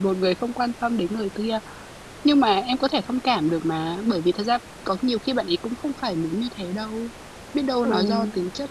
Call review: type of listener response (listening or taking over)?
listening